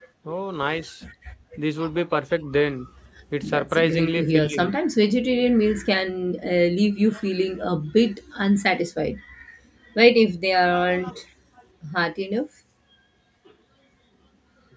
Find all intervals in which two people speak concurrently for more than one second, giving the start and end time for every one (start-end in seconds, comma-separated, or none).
3.4-4.7